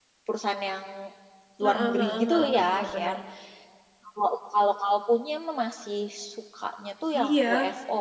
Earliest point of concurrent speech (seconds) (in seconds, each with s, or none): 1.6 s